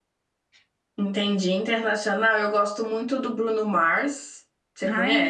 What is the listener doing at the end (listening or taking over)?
taking over